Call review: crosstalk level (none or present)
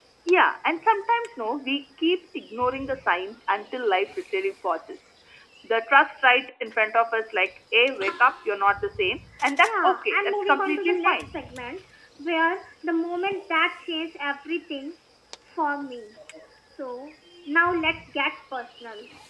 present